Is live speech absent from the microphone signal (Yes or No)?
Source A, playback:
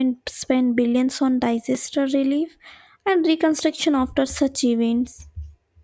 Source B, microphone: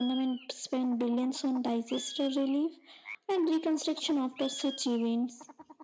Yes